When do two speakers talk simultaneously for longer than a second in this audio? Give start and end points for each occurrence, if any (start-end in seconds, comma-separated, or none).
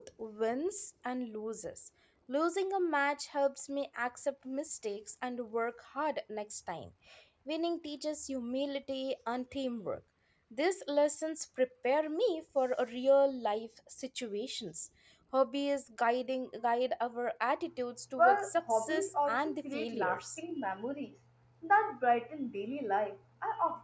18.2-20.4